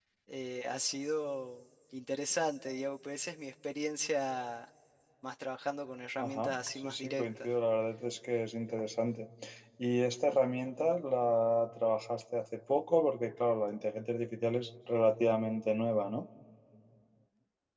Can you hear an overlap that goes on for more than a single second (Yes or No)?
Yes